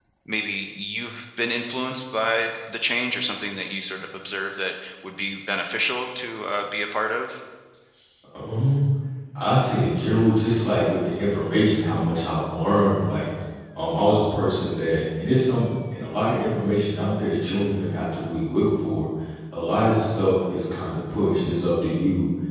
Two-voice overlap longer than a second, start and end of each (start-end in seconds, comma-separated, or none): none